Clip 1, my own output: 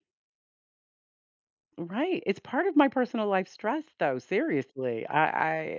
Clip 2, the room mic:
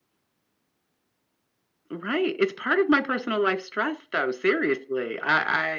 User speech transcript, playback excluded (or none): none